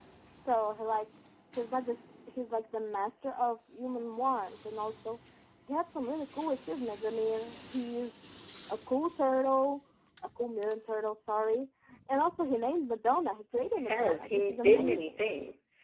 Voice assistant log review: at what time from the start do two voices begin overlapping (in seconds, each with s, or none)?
13.6 s